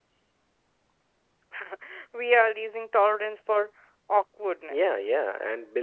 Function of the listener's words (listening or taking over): taking over